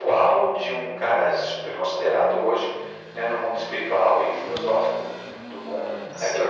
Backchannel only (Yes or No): No